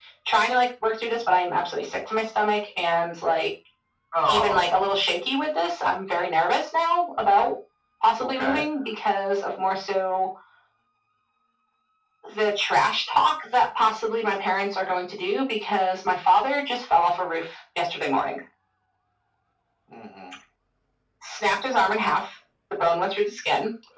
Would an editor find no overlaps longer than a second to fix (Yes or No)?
Yes